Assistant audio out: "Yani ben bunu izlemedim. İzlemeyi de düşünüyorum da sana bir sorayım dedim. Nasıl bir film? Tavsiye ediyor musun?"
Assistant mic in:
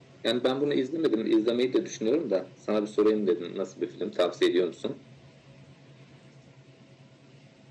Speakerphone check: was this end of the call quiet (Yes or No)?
Yes